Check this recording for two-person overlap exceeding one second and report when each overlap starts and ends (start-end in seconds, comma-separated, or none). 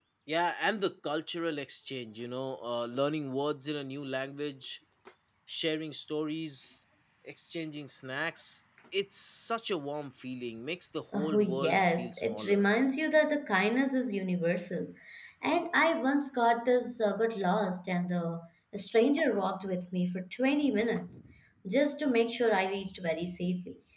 11.1-12.7